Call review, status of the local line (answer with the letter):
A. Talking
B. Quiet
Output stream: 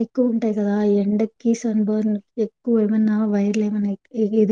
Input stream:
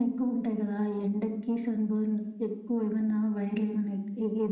B